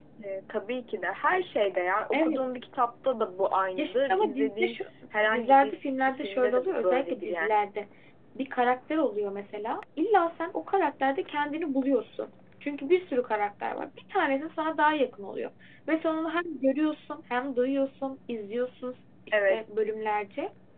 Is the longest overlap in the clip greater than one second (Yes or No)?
Yes